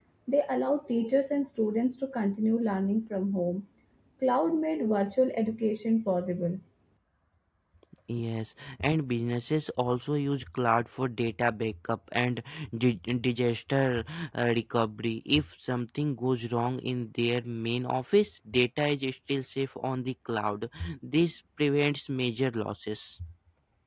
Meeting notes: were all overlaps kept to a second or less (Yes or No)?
Yes